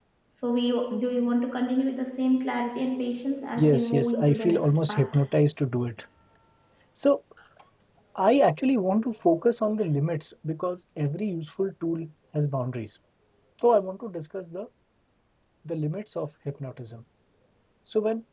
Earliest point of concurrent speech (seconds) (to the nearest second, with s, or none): 4 s